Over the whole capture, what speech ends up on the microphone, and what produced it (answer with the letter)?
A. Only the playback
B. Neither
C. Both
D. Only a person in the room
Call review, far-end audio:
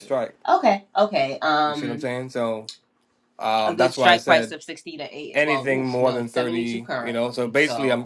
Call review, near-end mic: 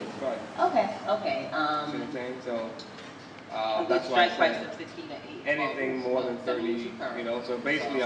A